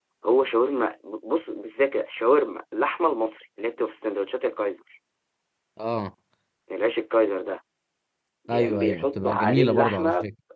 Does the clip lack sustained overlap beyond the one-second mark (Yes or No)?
No